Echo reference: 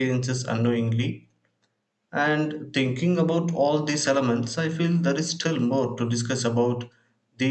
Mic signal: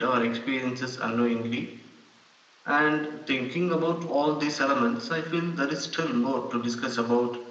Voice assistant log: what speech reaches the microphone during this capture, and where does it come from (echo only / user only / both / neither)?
echo only